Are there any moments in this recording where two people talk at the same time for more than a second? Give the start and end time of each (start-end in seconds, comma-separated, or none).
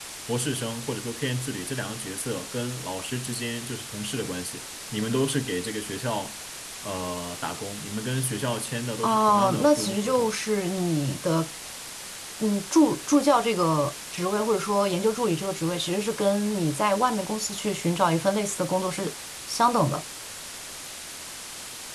9.0-10.3